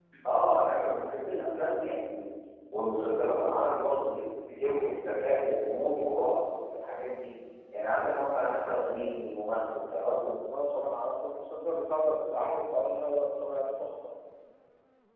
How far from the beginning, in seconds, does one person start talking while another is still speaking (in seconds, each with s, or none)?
none